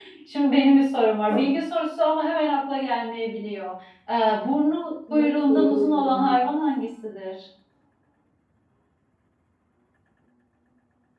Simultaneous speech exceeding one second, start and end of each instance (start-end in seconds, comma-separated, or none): 5.1-6.3